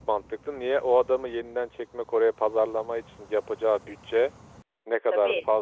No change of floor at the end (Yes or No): Yes